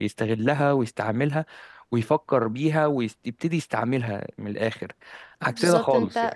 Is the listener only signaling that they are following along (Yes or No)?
No